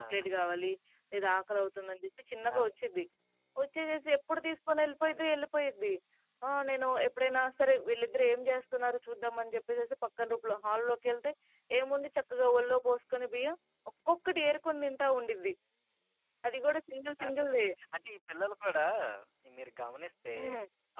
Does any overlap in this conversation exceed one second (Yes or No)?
No